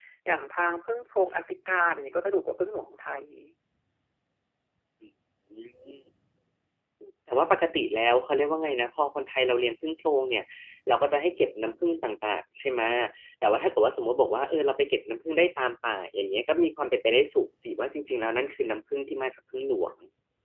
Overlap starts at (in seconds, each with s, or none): none